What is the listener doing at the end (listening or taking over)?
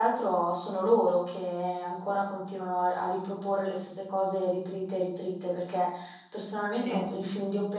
listening